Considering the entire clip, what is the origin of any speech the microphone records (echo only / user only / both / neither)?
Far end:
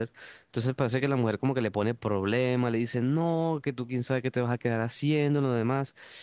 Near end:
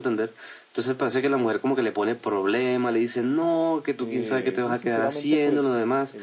both